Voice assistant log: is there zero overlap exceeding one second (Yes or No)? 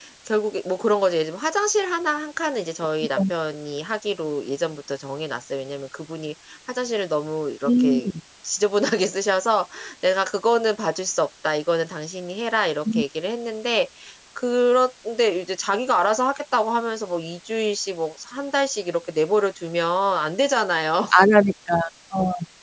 Yes